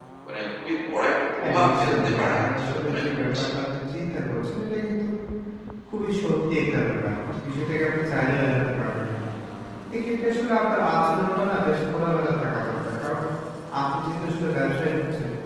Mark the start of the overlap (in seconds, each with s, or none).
1.4 s